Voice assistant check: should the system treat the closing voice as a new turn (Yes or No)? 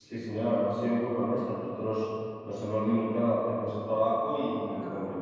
No